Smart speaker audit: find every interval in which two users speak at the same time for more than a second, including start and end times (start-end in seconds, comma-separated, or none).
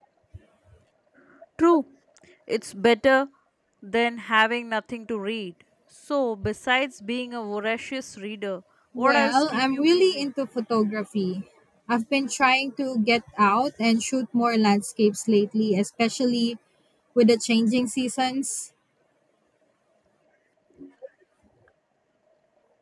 9.0-10.2